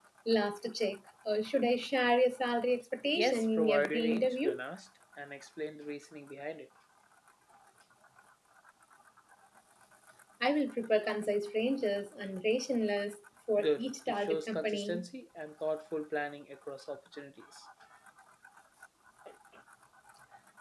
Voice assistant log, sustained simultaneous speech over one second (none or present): present